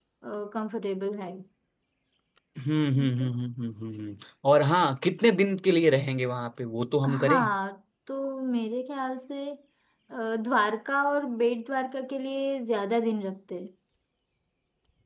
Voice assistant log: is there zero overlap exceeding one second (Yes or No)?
Yes